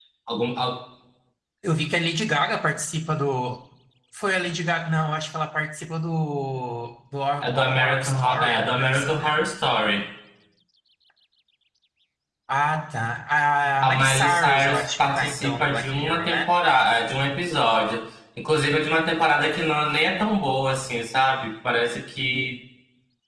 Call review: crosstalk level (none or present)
present